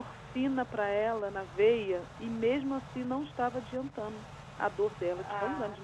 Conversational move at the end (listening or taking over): taking over